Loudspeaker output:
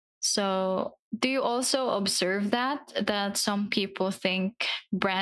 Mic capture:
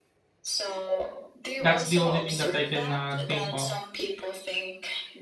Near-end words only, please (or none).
That's the only thing that I can uh, think of.